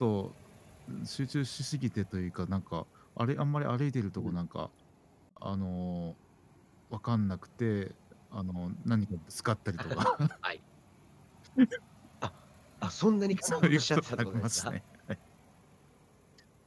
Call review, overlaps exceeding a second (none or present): present